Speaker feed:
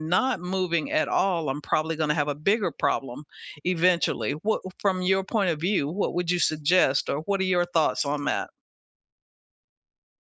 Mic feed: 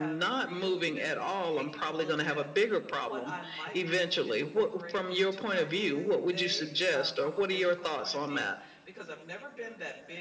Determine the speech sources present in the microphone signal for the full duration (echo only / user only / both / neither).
both